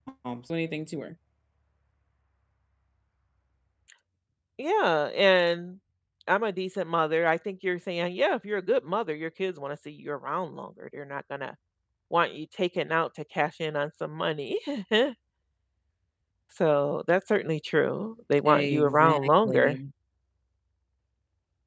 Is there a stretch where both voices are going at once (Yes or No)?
Yes